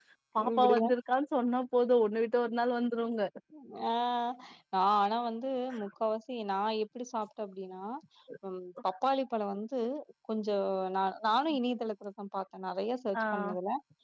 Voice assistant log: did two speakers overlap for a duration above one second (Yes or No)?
No